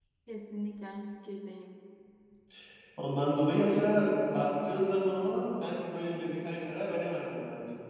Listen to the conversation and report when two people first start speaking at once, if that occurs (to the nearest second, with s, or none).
none